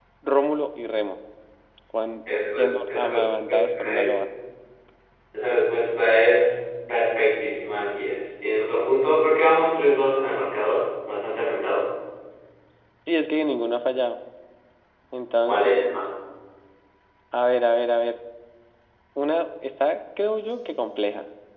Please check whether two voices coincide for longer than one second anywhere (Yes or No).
Yes